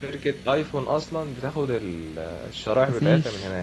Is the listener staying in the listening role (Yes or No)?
No